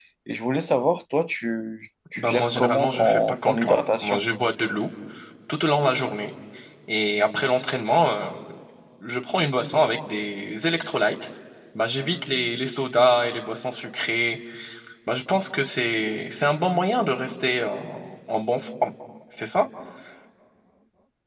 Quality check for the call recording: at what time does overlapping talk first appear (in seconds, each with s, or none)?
2.2 s